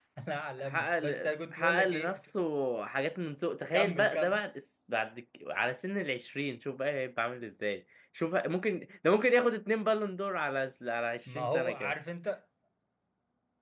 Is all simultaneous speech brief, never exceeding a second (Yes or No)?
No